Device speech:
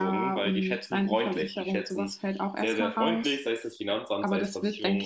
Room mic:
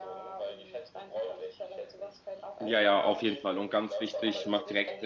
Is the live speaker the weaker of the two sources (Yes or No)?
No